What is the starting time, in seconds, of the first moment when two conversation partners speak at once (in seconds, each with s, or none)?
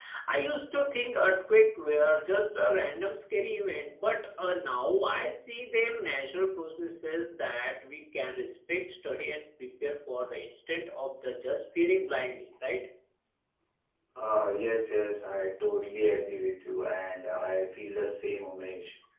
none